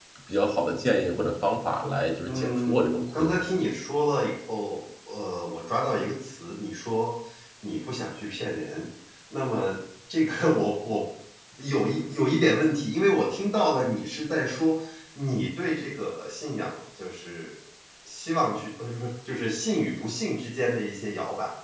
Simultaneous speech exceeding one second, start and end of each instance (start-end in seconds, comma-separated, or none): 2.2-3.4